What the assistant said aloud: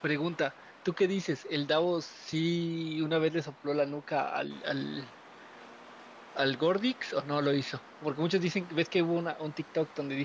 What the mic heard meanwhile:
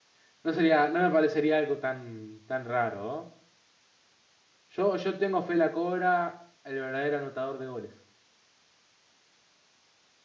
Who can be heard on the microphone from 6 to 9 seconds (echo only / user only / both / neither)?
user only